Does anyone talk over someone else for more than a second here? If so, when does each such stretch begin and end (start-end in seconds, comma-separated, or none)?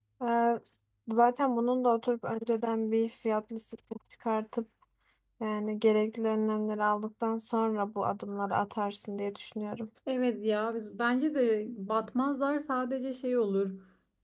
none